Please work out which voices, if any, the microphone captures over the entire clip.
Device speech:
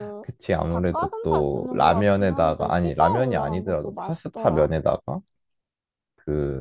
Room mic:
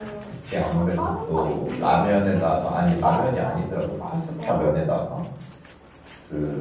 echo only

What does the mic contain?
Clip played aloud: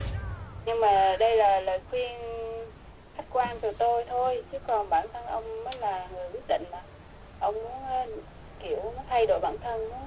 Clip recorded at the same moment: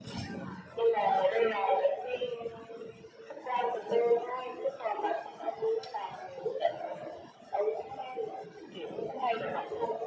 echo only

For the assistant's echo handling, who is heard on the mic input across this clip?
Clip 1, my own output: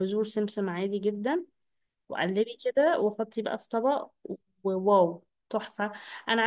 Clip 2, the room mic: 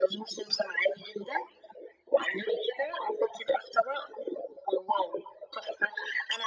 echo only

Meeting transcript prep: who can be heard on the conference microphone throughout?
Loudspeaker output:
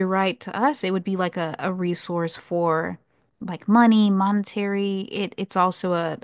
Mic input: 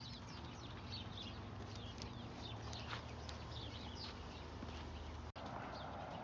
neither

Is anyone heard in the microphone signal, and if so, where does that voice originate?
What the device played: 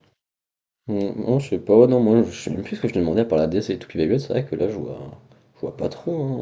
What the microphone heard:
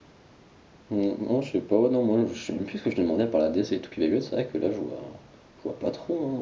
echo only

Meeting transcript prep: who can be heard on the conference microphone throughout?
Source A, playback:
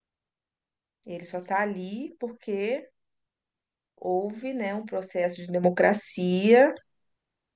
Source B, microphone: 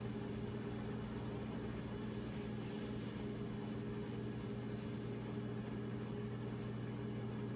neither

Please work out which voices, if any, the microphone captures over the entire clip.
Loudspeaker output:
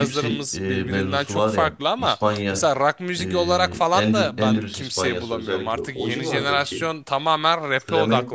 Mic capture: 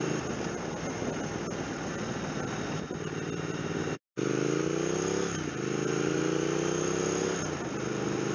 neither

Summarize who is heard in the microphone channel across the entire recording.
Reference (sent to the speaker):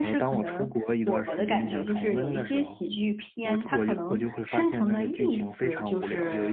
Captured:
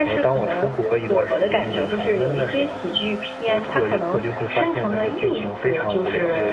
echo only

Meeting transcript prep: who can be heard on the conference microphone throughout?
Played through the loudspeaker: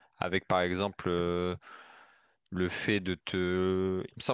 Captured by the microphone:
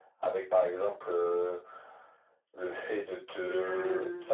both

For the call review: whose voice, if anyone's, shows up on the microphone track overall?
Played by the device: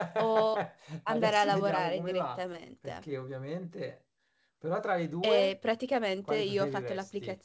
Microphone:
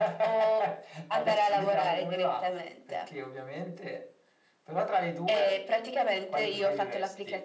echo only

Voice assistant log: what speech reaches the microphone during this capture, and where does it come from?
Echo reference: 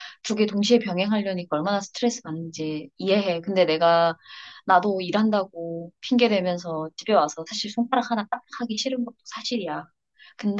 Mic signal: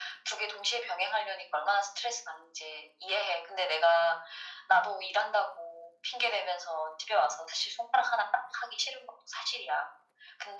echo only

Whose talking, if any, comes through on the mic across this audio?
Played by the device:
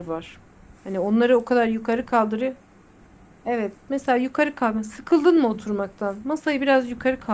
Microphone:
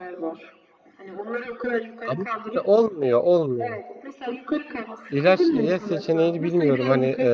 both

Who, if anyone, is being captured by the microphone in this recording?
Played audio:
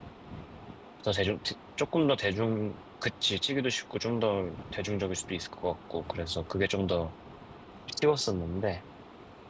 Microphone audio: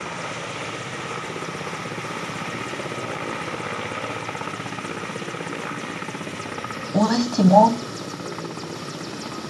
user only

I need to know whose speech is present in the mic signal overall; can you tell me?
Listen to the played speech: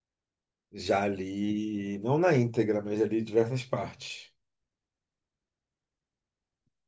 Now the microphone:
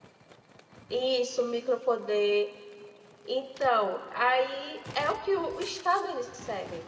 user only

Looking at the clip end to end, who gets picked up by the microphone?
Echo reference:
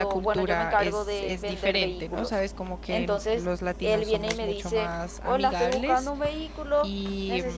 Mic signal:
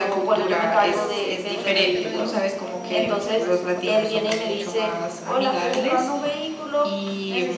both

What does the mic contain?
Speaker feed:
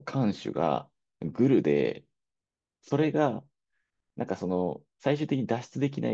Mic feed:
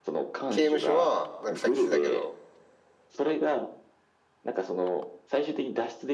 both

